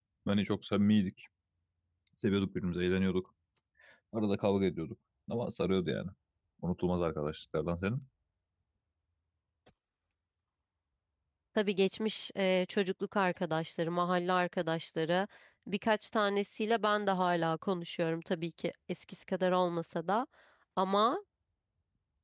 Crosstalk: none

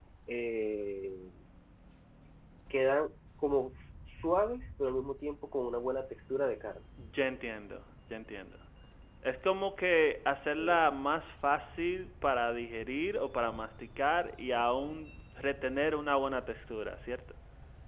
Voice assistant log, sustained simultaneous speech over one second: none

